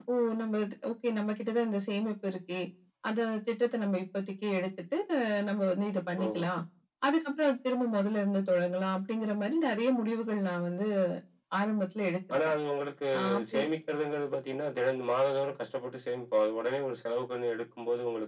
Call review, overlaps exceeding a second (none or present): none